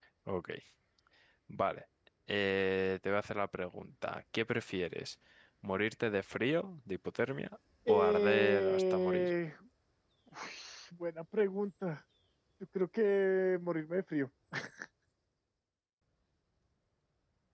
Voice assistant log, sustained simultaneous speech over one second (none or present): present